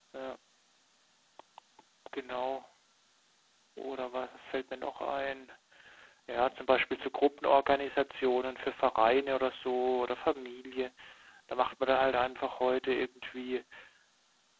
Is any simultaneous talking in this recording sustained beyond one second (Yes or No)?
No